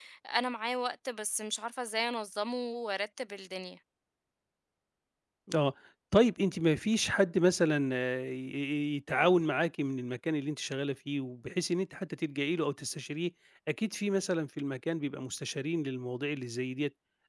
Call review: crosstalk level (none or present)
none